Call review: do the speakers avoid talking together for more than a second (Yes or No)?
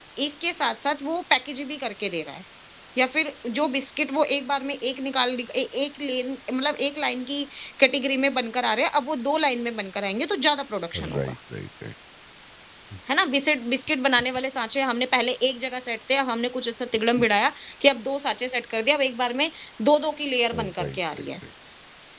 Yes